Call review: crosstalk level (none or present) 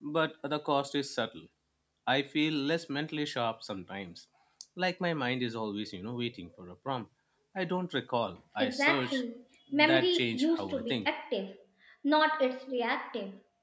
present